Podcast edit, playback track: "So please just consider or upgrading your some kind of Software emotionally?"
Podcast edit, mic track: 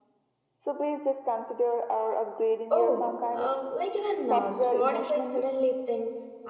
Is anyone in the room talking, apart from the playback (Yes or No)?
Yes